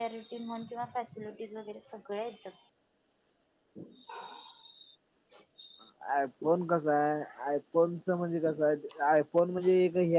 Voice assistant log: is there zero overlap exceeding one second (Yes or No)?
Yes